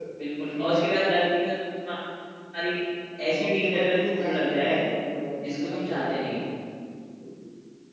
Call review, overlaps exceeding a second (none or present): present